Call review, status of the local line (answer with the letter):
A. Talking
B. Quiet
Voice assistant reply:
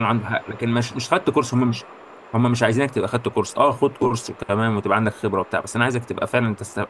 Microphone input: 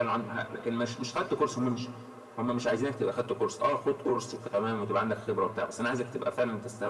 B